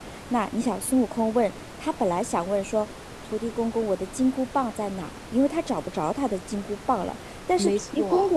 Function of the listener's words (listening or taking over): listening